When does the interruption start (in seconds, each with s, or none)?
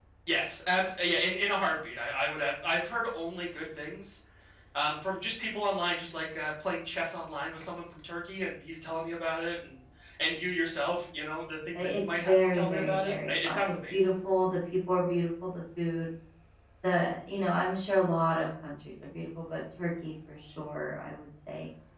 11.8 s